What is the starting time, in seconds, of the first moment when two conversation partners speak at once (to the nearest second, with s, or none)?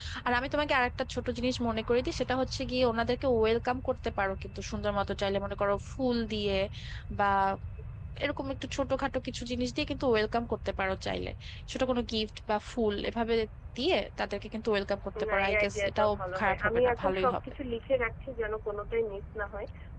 15 s